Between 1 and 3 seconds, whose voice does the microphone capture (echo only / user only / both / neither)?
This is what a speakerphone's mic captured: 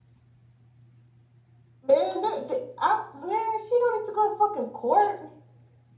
user only